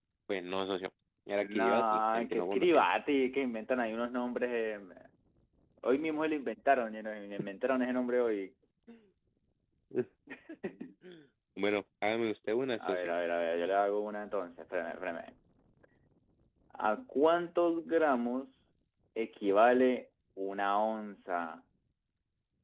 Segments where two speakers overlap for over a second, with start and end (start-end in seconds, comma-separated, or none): 1.4-2.9